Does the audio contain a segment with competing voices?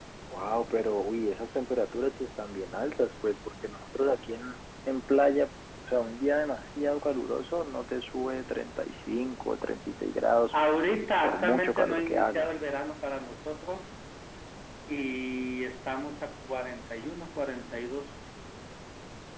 Yes, from 11.2 s

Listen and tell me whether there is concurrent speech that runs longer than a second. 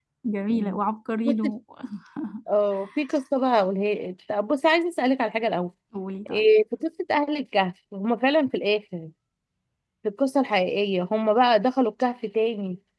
No

